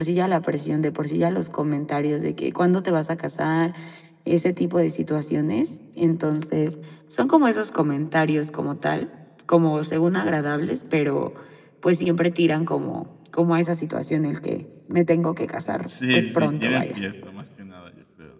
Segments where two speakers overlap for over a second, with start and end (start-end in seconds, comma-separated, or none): 15.7-17.0